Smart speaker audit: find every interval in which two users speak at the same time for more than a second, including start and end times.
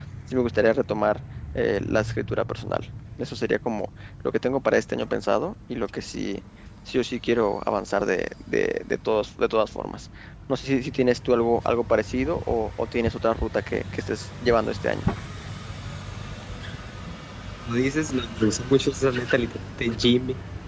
none

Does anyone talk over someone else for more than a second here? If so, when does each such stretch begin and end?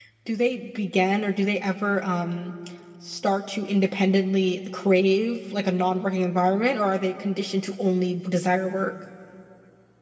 none

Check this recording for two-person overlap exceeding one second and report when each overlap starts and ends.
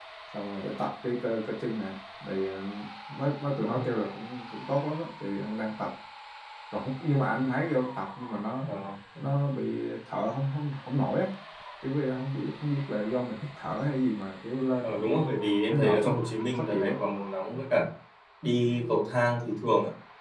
none

